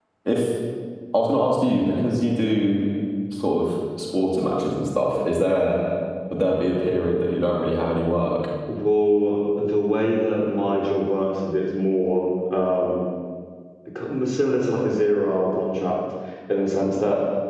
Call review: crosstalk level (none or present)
none